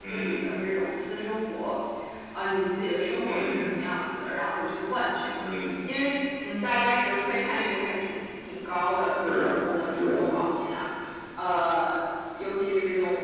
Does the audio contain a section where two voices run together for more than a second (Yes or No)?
No